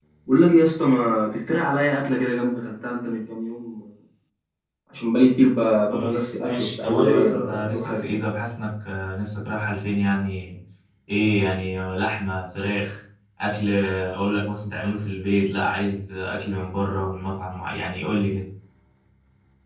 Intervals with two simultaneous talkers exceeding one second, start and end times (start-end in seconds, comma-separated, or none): 5.9-8.2